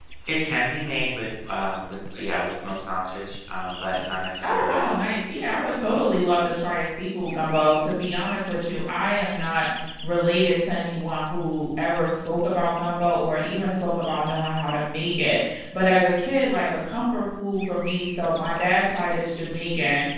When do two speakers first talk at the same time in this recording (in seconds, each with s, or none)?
4.4 s